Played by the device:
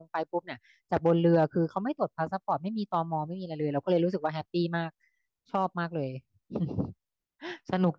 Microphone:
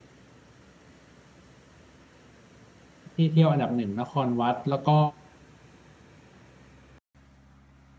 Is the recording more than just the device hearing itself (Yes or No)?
Yes